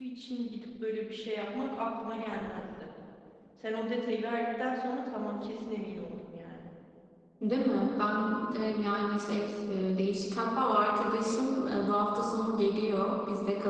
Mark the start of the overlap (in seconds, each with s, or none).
none